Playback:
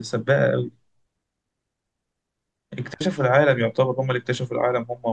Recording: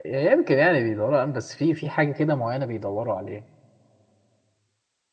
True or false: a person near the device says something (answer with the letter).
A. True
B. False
A